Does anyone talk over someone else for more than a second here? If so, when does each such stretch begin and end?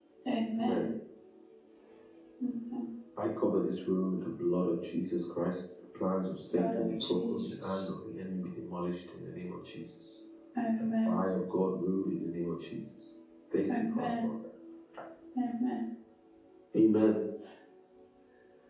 6.5-7.9

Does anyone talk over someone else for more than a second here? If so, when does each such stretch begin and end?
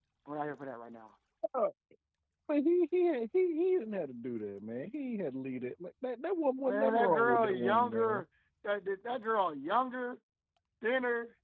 6.7-8.2

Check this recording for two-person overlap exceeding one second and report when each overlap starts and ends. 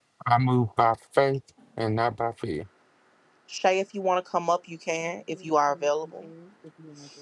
none

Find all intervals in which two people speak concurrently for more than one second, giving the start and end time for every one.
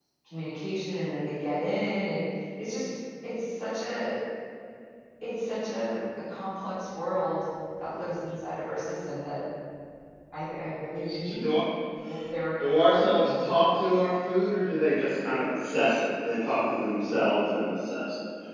none

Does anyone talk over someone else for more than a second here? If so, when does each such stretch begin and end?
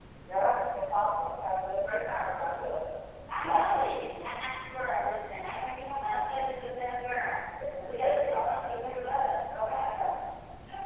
none

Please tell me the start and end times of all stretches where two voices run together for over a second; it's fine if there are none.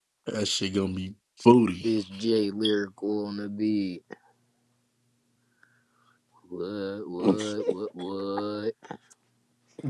none

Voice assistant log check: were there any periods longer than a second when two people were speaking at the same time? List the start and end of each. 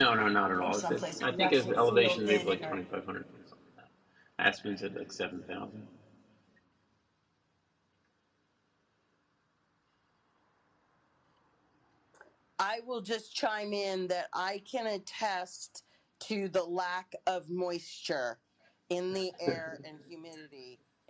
0.6-2.8

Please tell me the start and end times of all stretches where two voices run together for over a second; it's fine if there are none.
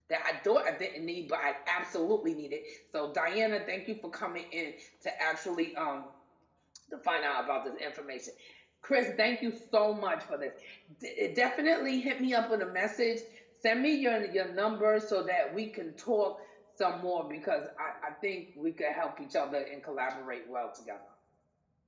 none

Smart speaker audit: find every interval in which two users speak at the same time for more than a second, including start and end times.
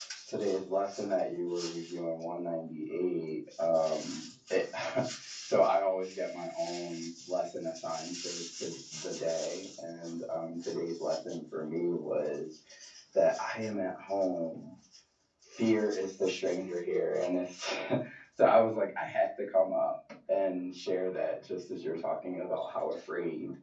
none

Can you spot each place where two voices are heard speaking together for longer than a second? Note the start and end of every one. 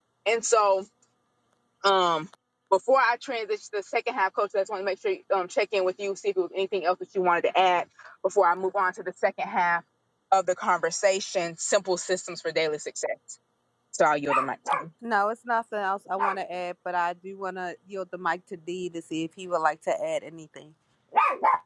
none

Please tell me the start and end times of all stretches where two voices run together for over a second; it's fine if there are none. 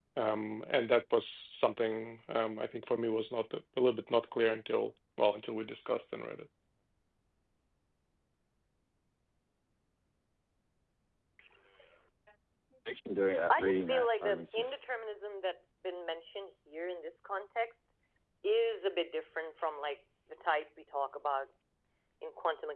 13.5-14.7

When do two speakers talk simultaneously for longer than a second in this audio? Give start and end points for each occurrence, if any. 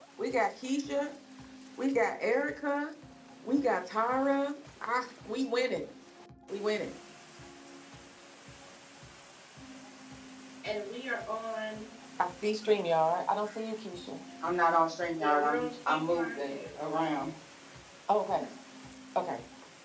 15.2-16.6

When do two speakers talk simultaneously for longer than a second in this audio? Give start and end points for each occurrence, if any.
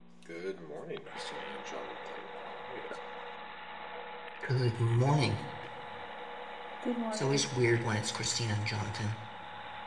none

